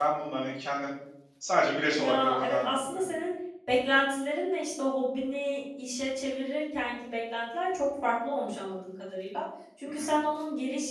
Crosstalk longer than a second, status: present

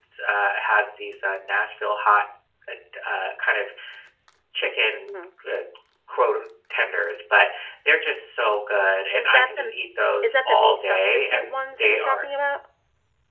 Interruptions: present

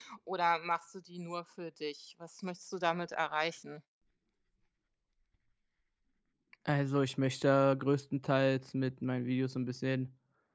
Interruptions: none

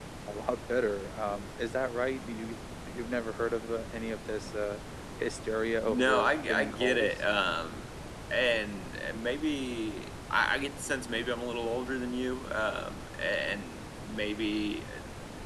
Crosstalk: present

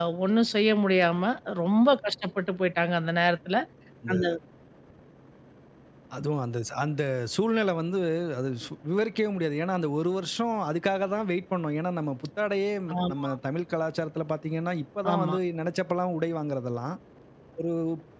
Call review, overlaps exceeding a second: none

